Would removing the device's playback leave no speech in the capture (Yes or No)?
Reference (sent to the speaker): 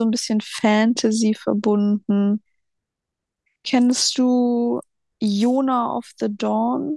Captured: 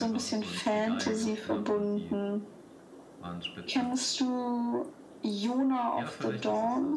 No